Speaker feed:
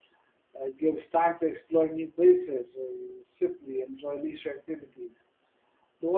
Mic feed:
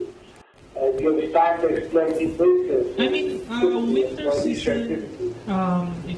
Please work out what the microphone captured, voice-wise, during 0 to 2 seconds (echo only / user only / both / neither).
echo only